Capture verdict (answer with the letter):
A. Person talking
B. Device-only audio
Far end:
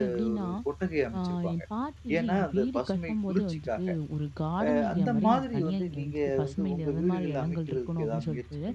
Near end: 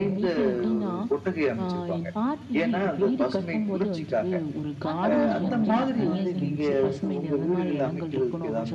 A